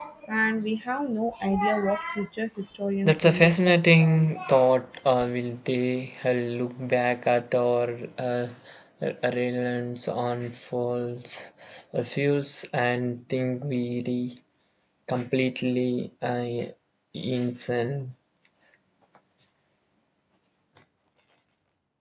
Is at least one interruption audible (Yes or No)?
Yes